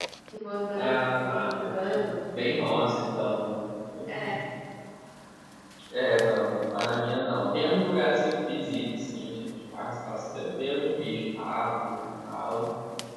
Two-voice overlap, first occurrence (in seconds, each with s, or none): 0.7 s